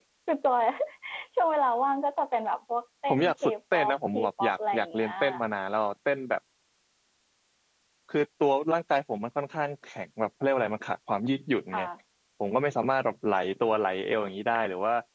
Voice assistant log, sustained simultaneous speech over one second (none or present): present